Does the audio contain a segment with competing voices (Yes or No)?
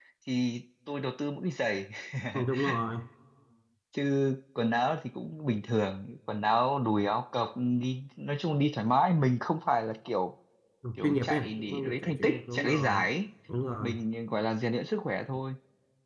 Yes